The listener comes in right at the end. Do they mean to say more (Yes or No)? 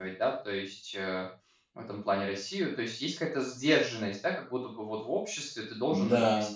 No